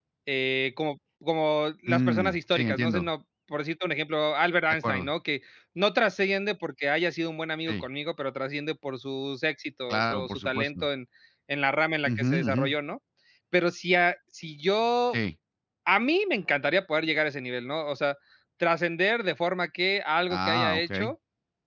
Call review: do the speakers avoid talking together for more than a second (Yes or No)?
No